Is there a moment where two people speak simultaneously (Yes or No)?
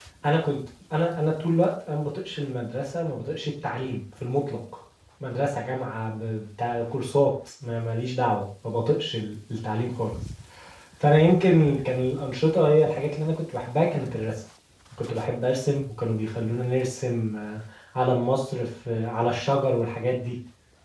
No